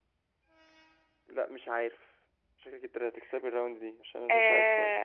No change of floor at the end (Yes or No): No